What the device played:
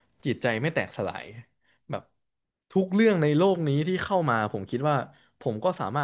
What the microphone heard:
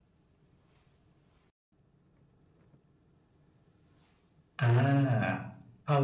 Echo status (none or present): none